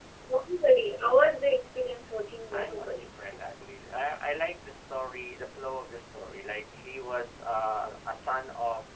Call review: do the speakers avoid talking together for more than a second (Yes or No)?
Yes